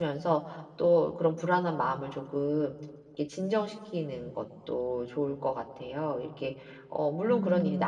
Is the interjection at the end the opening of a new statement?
No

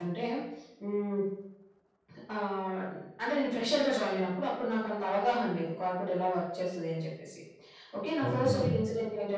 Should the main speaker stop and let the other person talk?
No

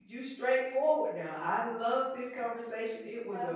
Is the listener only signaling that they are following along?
No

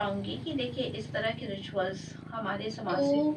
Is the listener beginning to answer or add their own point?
Yes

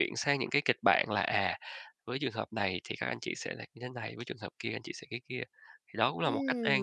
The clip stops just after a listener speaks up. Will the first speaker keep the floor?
No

